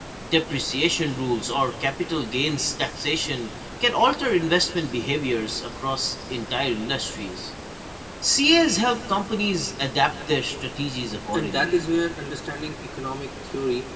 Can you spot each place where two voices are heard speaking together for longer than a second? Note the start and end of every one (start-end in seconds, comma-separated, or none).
none